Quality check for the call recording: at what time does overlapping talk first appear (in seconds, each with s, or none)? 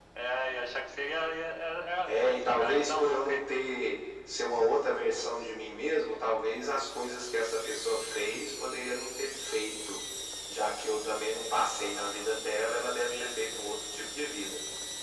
2.1 s